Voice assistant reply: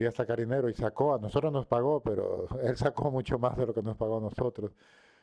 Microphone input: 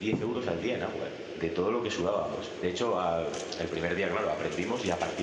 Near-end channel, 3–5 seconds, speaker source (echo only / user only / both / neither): user only